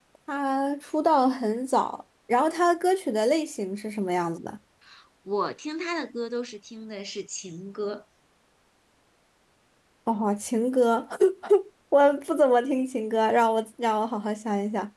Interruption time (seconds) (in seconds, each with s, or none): none